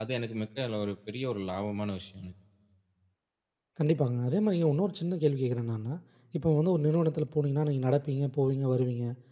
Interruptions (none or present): none